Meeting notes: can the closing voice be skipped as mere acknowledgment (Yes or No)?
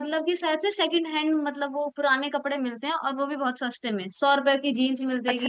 No